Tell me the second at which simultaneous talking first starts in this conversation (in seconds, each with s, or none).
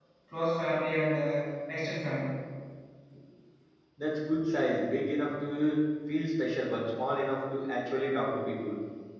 none